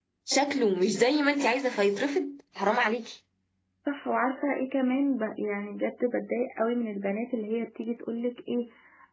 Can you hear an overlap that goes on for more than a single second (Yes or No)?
No